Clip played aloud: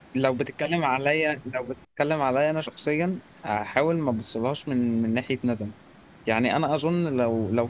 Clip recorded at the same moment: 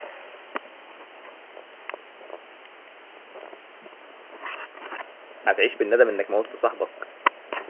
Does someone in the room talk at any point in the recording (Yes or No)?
Yes